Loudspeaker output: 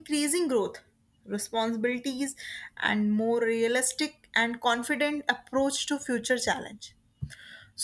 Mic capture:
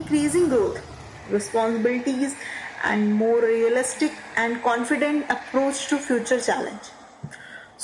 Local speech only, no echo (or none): none